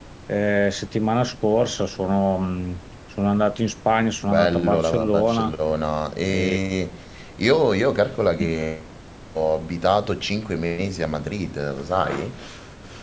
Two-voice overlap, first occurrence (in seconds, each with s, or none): 4.3 s